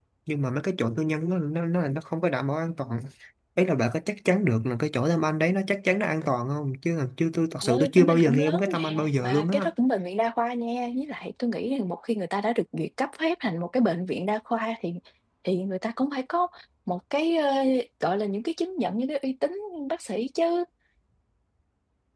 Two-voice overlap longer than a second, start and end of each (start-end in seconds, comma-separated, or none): 7.6-9.7